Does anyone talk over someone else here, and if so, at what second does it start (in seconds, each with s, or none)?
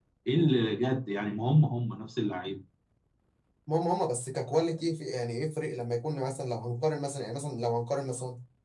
none